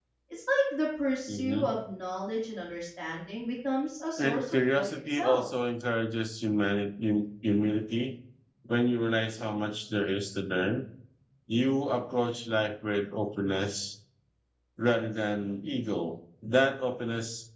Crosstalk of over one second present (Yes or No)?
Yes